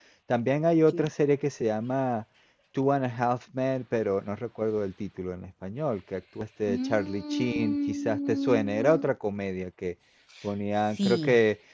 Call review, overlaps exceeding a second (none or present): present